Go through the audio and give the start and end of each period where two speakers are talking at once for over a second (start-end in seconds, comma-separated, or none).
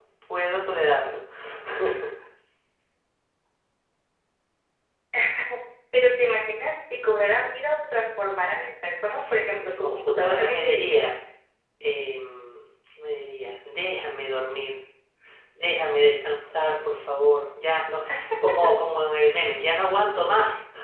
9.6-10.9